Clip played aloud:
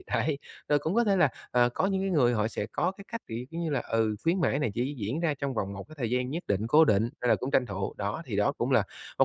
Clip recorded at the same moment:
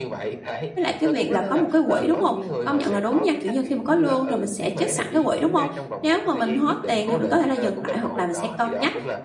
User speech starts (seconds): 0.8 s

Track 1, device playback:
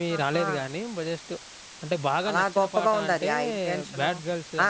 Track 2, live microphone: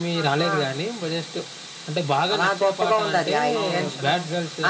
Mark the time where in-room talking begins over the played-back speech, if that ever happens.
3.6 s

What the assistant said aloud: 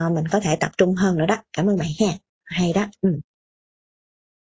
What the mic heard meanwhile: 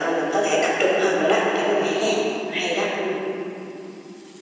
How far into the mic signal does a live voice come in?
none

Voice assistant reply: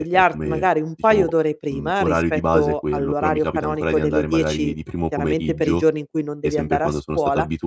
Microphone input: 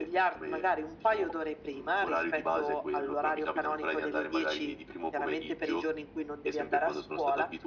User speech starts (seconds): none

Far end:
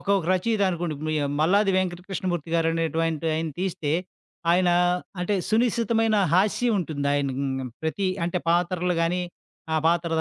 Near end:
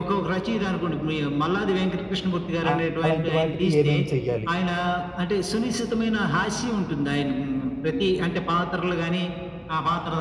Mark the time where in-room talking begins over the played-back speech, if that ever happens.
2.7 s

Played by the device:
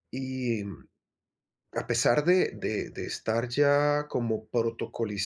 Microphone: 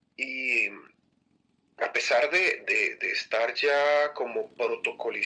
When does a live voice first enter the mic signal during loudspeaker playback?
none

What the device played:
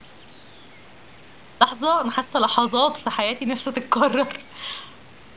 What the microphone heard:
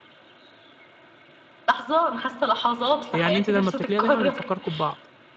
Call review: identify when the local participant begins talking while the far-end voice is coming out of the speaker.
3.1 s

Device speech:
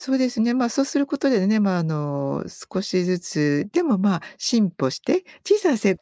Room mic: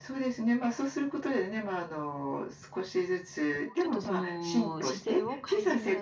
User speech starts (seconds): 3.8 s

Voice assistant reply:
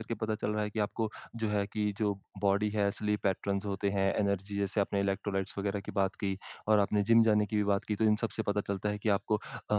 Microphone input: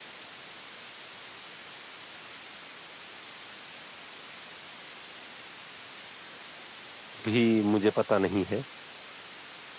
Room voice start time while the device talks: 7.2 s

